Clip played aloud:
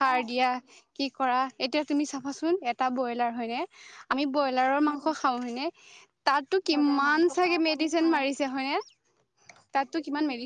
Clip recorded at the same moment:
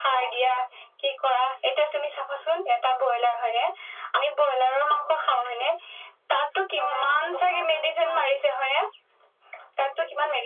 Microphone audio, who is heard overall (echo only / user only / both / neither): echo only